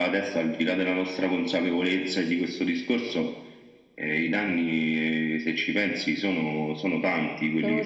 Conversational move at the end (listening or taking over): taking over